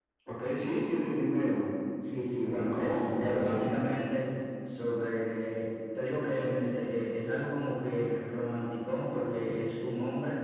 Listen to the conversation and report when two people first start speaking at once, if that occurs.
2.4 s

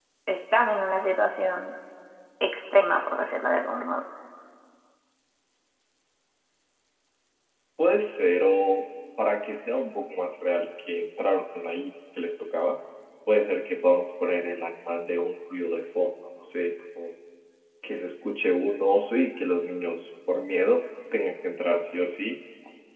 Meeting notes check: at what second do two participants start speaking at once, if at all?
none

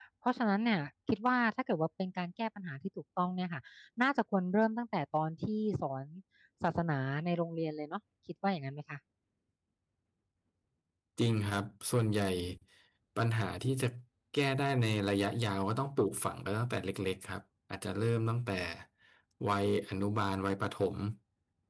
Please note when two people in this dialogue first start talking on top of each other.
none

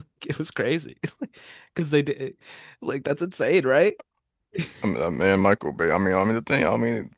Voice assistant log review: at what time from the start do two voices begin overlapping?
none

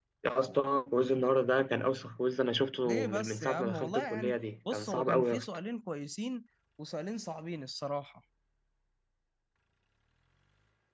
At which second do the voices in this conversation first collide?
2.9 s

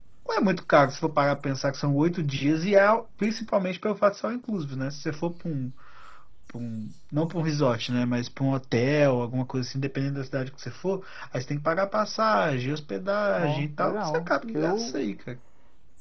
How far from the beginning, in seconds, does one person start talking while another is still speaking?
13.4 s

